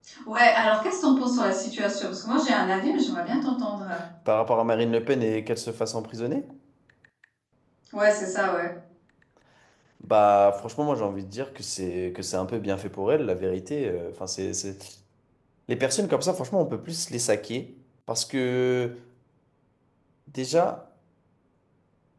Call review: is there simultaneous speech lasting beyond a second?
No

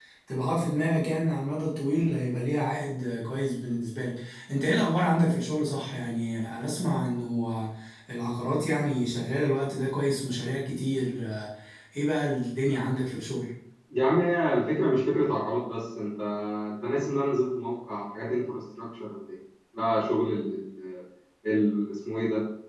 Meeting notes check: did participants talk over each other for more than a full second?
No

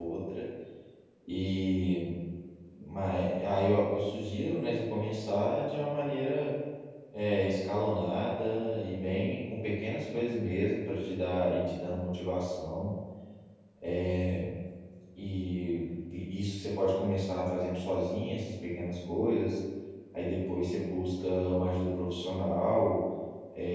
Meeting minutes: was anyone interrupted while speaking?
No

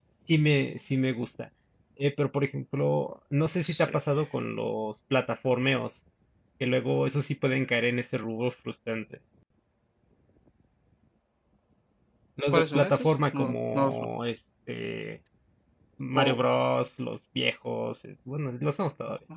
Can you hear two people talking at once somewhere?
Yes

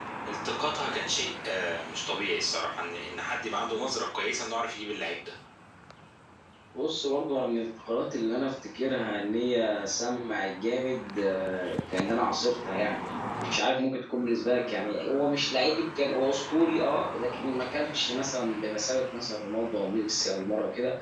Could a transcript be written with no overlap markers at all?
Yes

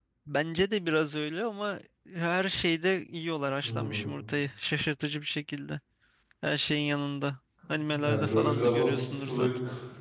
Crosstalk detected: Yes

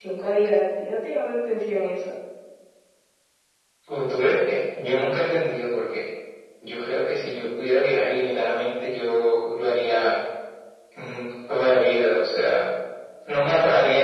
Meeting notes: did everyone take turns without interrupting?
Yes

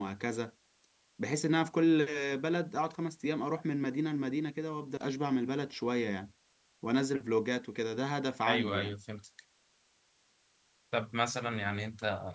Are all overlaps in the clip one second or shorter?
Yes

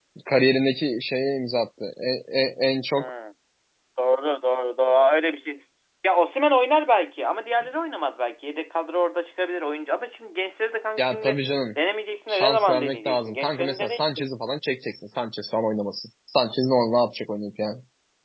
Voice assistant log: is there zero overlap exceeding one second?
No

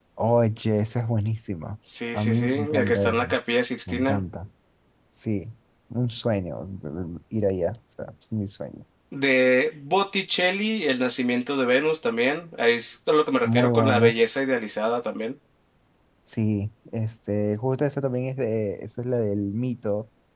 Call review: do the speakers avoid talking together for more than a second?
No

